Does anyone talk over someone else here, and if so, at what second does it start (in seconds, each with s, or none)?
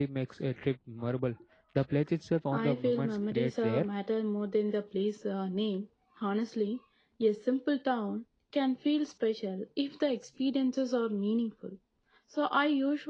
2.5 s